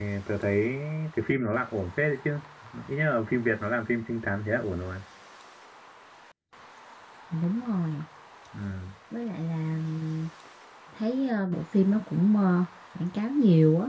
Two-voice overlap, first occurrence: none

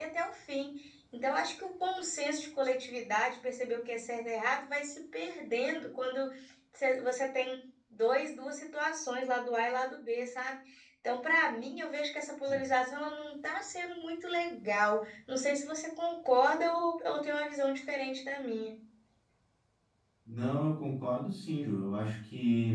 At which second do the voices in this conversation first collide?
none

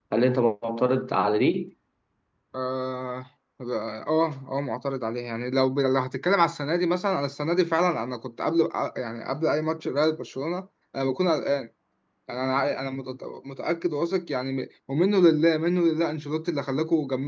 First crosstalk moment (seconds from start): none

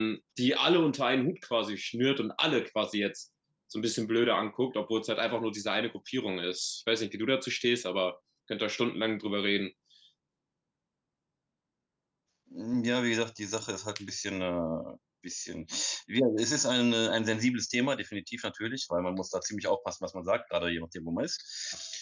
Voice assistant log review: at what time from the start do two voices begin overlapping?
none

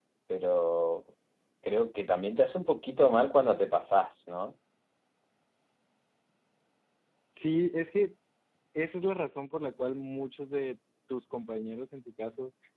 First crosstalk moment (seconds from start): none

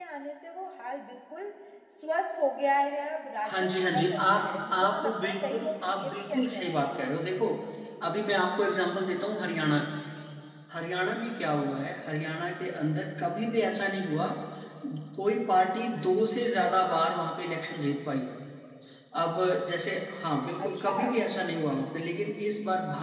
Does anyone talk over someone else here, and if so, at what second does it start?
3.5 s

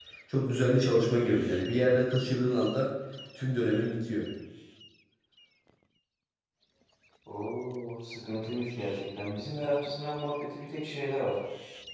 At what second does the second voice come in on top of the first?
none

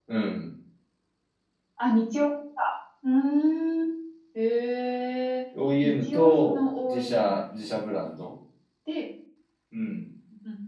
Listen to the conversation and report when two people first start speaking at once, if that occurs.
5.8 s

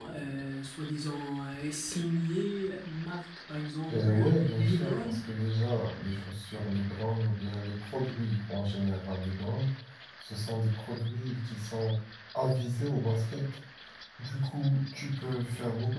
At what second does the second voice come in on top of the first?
3.9 s

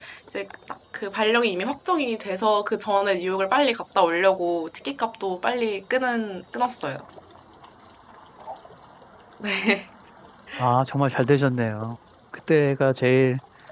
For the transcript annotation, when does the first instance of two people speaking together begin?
none

